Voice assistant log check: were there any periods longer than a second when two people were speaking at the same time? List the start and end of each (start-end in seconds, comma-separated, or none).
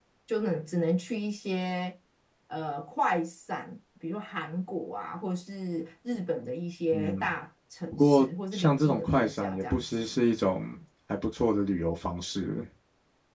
7.9-10.1